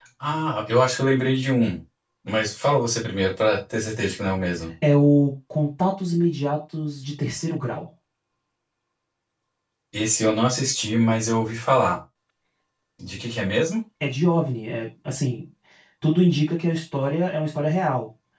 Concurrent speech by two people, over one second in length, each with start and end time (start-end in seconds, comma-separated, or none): none